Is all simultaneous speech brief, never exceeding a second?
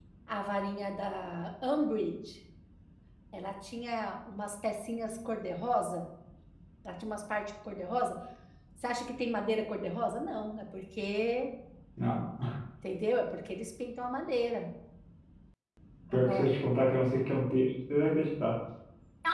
Yes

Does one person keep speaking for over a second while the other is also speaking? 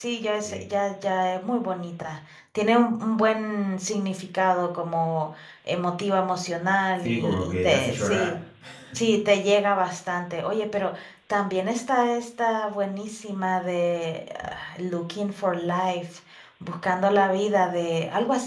Yes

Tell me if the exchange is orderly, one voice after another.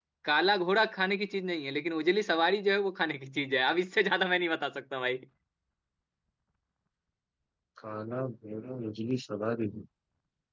Yes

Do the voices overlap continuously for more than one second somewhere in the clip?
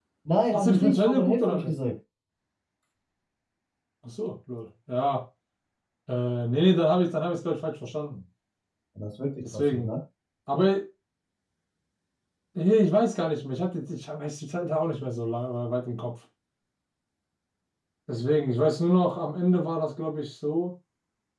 Yes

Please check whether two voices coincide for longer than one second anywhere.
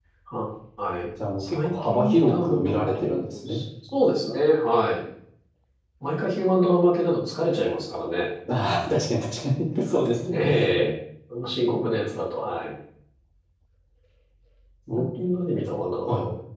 Yes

